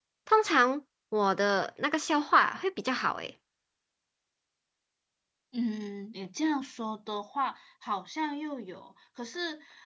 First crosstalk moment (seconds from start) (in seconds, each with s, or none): none